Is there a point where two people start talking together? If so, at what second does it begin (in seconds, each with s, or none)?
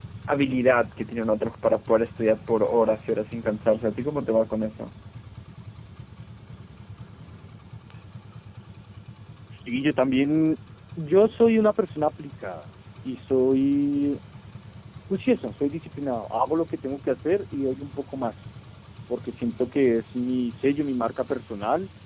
none